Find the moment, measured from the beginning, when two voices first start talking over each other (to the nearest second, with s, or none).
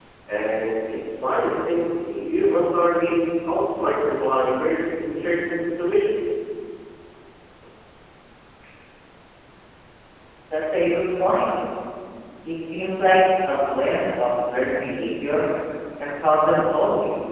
none